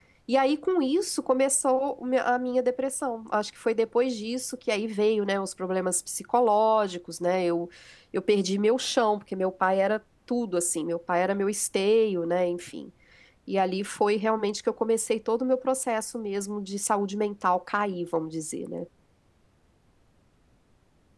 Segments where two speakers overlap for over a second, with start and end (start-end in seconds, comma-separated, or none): none